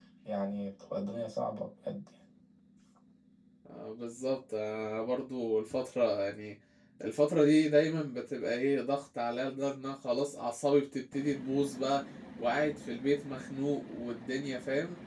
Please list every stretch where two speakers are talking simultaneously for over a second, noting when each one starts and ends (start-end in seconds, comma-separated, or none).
none